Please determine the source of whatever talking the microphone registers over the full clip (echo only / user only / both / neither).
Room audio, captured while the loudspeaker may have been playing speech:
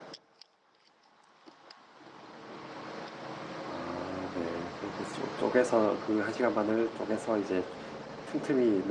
user only